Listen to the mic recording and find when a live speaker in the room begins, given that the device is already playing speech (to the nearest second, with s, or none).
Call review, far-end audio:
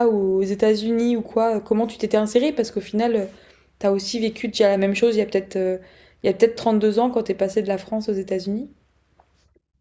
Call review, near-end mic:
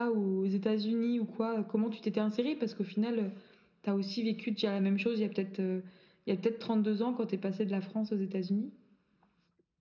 none